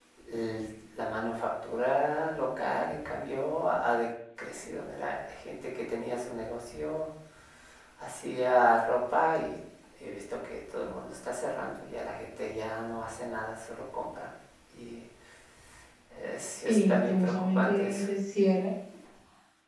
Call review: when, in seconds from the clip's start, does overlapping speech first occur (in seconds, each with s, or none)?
16.6 s